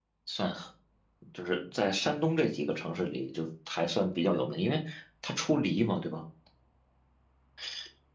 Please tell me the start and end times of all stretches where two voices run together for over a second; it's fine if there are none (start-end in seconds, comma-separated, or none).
none